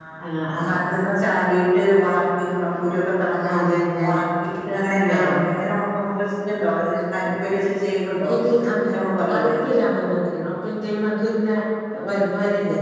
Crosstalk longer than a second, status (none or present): none